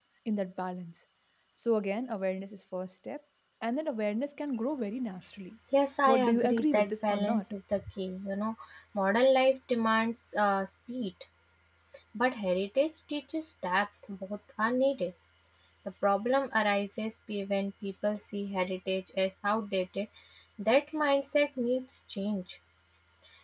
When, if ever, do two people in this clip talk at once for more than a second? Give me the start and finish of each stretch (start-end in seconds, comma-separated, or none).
6.1-7.4